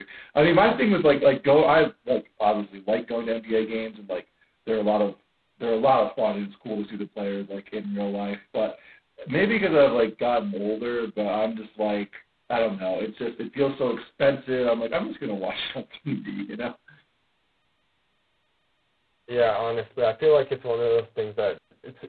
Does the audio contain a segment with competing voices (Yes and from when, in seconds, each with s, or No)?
No